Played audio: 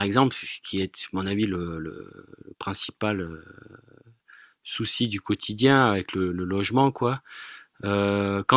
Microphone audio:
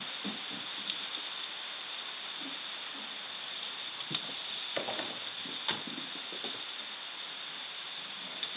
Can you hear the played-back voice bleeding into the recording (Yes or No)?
No